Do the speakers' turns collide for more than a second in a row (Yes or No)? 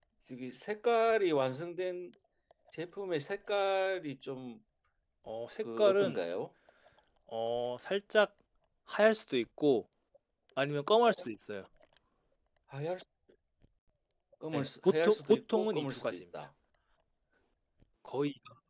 Yes